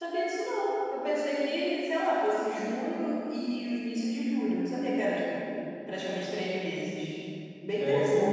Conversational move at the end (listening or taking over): taking over